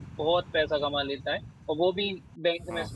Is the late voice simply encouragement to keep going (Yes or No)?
Yes